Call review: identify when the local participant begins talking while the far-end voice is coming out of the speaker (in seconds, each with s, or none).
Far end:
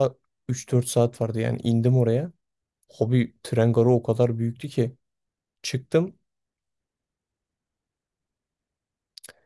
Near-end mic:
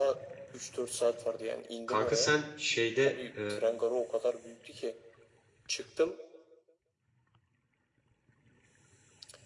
1.9 s